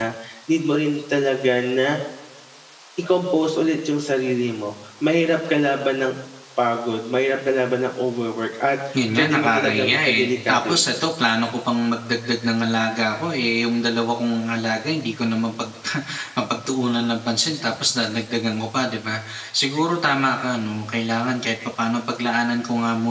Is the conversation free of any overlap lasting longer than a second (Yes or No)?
No